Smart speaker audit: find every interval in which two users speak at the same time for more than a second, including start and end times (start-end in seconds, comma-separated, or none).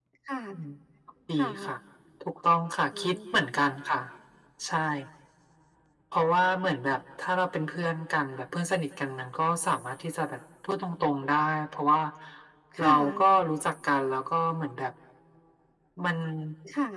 none